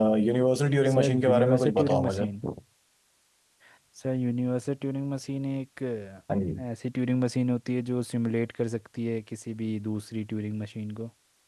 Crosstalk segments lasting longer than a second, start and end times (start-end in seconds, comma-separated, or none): 0.9-2.2